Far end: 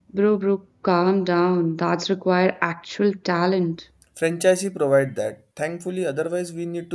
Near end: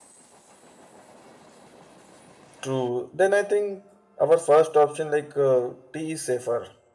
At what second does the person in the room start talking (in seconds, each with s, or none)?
2.6 s